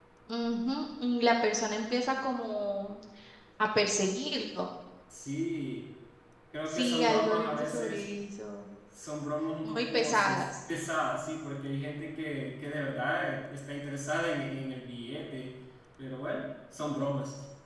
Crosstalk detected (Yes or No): Yes